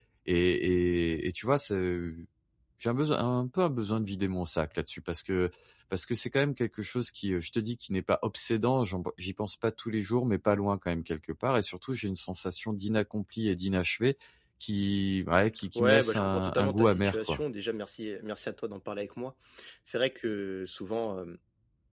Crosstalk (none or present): present